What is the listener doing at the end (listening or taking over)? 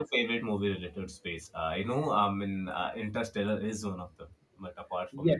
taking over